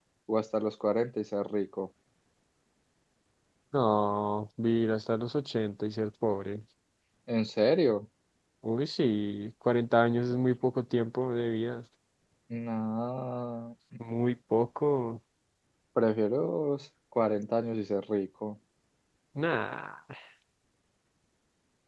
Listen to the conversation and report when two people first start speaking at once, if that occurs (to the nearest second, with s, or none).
none